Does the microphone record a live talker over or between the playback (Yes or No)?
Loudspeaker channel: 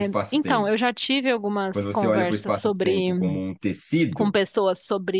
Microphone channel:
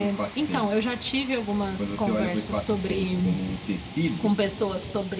No